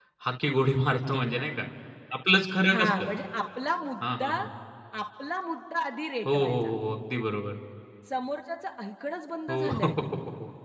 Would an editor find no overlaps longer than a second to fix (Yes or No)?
Yes